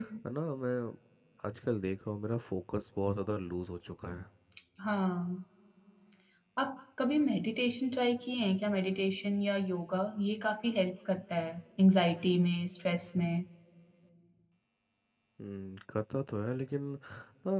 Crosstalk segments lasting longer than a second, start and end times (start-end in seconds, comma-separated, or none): none